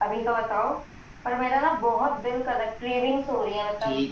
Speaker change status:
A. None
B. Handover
B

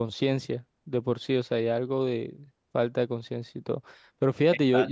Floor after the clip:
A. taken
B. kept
B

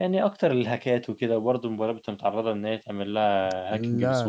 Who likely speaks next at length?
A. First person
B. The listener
B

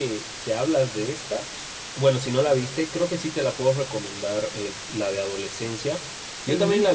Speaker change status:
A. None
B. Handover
A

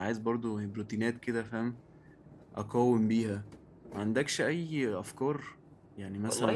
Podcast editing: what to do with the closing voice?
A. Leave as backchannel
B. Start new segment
B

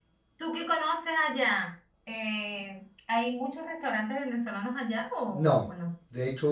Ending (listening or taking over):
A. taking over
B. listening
A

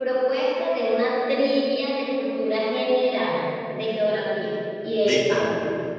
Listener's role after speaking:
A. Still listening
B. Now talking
B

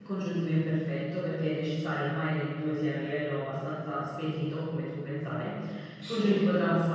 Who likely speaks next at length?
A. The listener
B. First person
B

